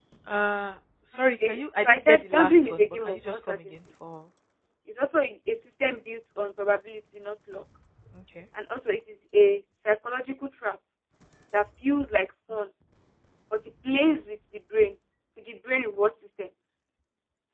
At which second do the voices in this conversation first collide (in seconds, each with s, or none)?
1.4 s